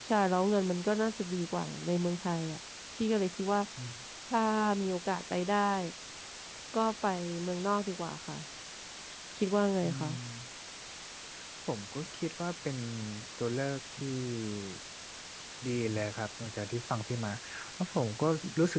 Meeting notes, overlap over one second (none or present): none